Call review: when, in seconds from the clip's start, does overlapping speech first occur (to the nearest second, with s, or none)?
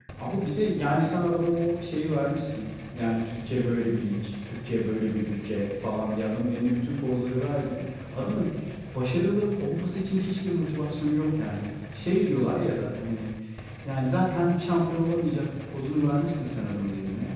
none